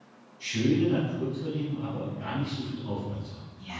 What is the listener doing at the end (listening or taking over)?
taking over